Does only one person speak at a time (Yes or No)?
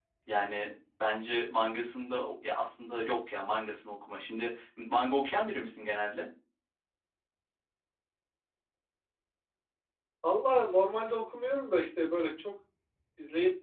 Yes